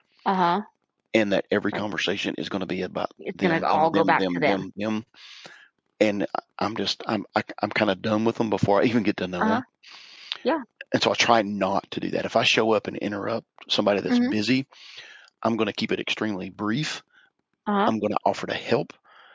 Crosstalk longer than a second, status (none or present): present